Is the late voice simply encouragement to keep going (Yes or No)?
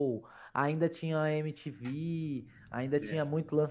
Yes